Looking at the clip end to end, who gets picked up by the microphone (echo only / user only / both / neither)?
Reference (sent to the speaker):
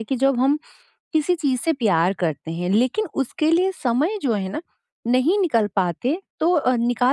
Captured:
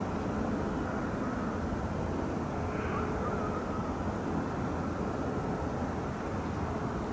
neither